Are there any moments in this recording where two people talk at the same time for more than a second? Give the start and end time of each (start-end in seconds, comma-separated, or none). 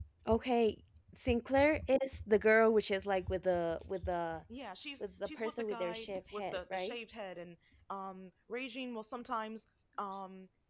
5.0-7.0